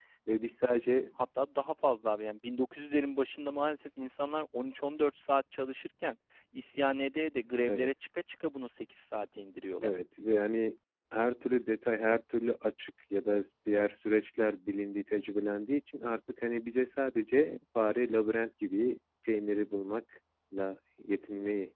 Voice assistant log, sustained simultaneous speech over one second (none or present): none